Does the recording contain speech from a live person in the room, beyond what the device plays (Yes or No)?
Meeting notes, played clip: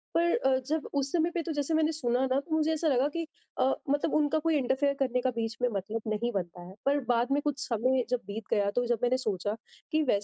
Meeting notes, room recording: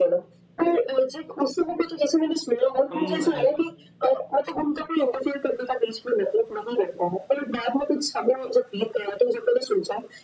Yes